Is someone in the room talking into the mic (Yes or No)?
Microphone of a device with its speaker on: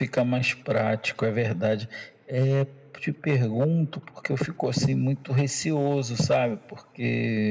No